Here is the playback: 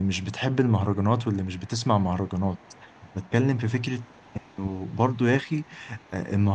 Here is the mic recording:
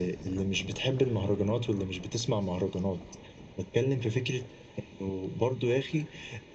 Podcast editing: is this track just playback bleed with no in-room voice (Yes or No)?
Yes